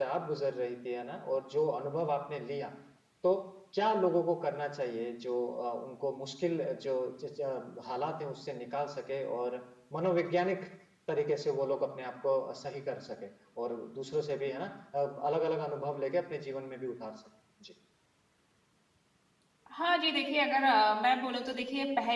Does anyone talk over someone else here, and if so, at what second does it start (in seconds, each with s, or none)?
none